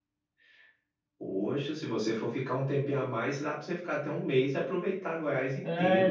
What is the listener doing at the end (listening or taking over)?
taking over